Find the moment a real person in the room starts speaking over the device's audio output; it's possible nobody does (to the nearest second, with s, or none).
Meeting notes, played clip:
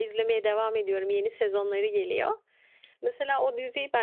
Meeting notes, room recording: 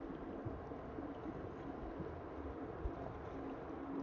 none